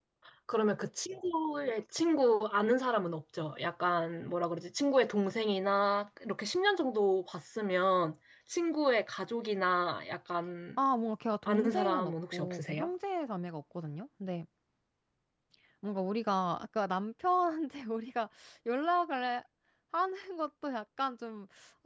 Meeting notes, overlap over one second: present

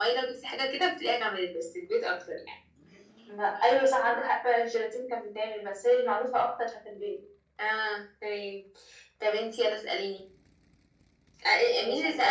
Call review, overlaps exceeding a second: none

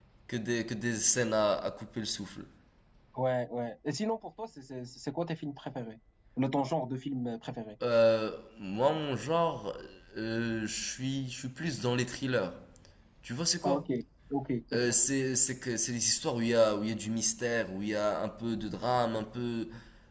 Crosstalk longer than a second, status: none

